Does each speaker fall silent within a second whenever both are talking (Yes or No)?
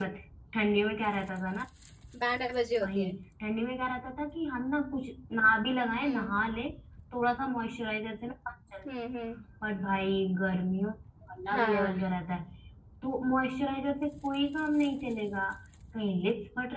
Yes